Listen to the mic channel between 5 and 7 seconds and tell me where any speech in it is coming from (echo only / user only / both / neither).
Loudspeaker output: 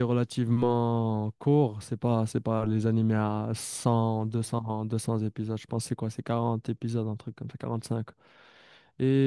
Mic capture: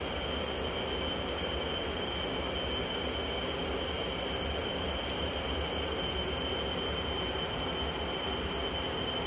neither